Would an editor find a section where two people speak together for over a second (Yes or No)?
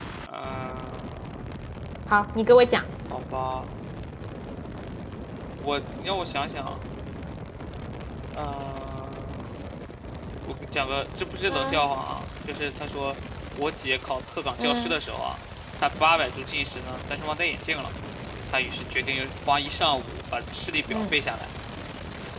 No